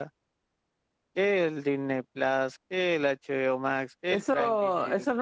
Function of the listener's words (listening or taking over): taking over